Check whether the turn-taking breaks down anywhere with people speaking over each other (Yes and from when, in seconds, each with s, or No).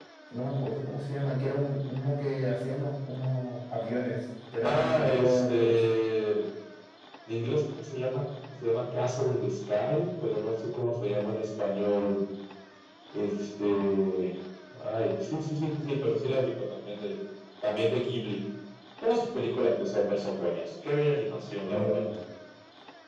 Yes, from 4.6 s